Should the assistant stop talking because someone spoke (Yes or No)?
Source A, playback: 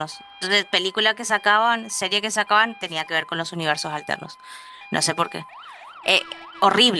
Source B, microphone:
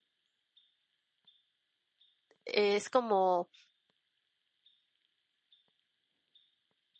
Yes